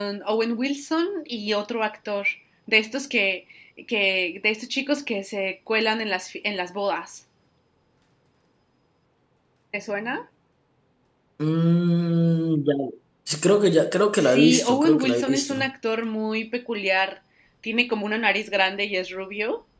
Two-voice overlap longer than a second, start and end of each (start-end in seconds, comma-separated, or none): 14.2-15.5